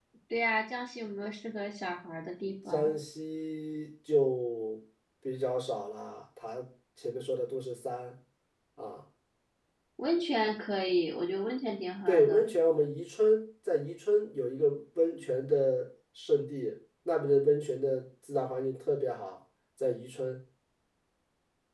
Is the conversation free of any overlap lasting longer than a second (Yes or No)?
Yes